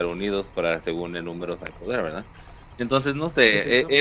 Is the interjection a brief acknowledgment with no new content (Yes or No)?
Yes